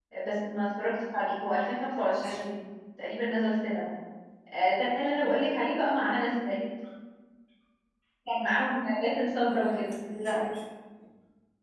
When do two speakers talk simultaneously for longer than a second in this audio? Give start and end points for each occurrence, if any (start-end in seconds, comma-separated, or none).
none